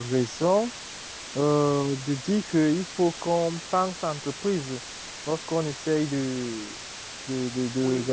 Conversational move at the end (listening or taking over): listening